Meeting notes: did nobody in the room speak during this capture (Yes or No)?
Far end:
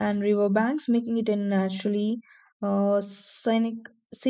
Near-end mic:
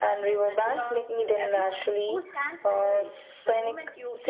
No